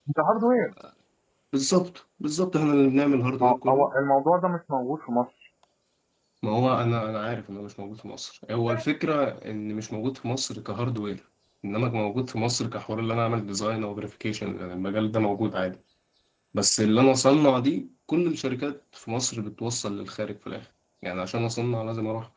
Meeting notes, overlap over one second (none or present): none